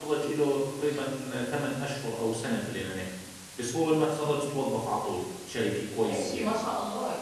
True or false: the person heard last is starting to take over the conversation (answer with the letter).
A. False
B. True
B